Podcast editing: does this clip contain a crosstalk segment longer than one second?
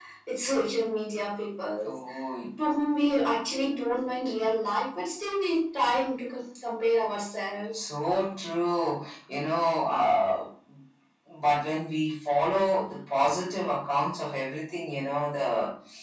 No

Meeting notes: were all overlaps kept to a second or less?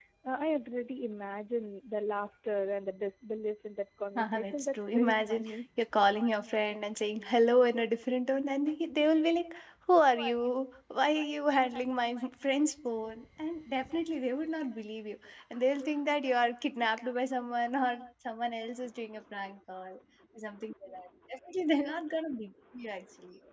No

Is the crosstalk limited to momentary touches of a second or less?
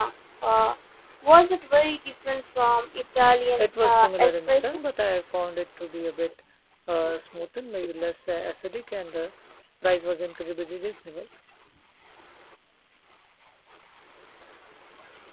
No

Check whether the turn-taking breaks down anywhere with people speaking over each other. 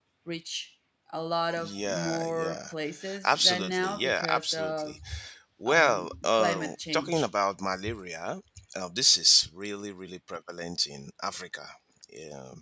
Yes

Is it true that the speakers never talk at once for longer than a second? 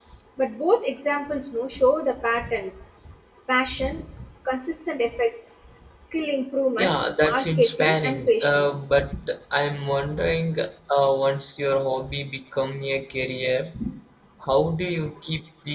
No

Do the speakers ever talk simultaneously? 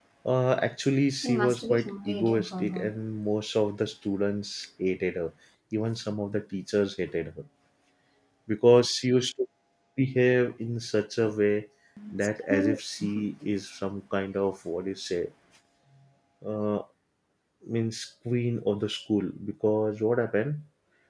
Yes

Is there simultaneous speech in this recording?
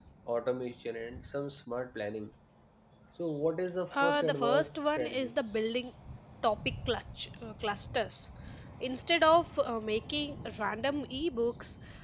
Yes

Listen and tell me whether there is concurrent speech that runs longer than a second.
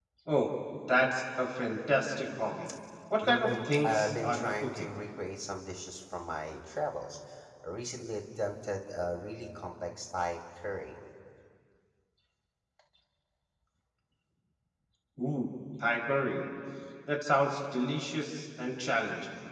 Yes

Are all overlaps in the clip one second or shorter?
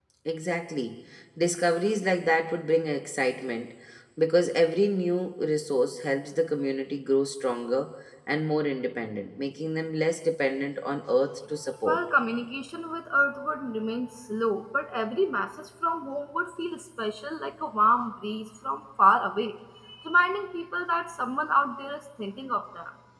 Yes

